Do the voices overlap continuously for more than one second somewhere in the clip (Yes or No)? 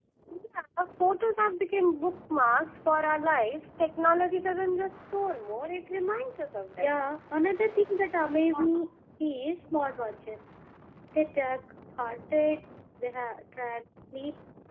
No